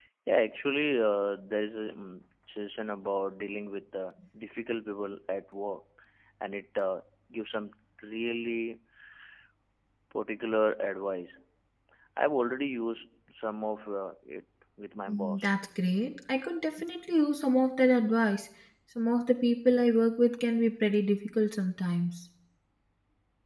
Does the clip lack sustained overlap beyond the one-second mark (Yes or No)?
Yes